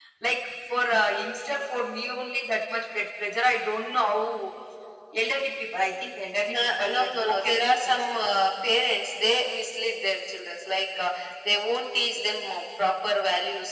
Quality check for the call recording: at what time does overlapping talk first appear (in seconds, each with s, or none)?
6.5 s